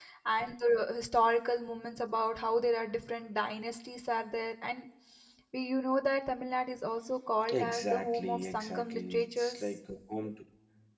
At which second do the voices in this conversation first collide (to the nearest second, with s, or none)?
7 s